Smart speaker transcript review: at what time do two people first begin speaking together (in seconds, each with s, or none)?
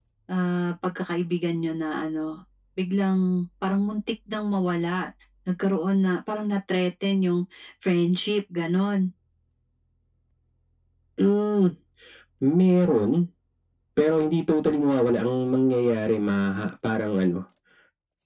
none